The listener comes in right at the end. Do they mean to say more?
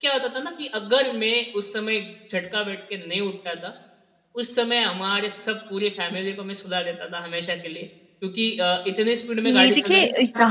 Yes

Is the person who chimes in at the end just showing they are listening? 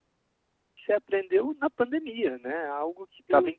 Yes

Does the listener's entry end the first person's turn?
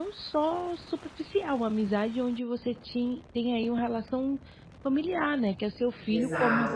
Yes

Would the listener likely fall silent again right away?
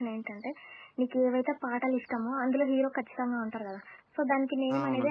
Yes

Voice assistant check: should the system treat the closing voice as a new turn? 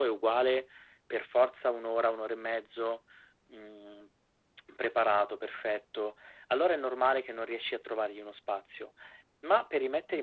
No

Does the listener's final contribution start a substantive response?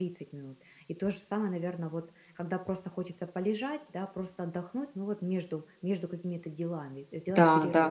Yes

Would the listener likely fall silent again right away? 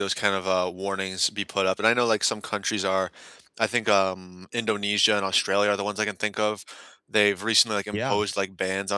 Yes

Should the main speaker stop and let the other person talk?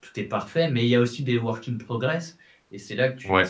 No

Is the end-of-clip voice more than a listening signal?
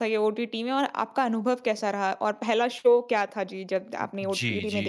Yes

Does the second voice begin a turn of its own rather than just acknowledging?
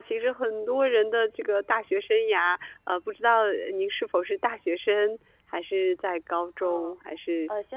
Yes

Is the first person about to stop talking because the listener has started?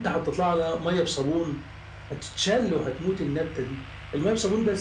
No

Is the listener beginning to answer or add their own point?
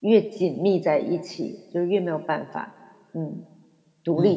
Yes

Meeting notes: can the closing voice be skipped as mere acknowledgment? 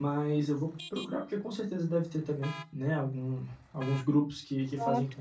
Yes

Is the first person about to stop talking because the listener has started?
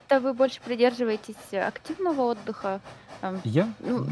Yes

